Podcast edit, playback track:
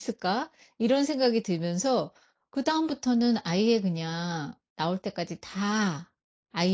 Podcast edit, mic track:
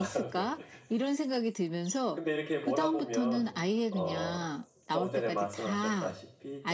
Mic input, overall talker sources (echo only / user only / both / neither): both